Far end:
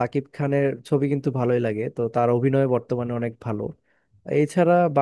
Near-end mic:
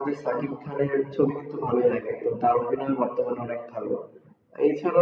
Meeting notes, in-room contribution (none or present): none